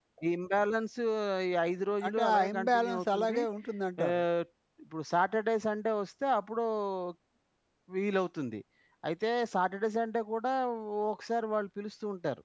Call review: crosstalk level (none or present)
present